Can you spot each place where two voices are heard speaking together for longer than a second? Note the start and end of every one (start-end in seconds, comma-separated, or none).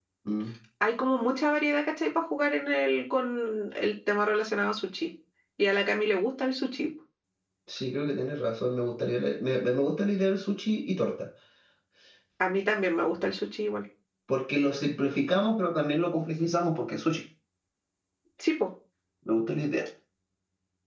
none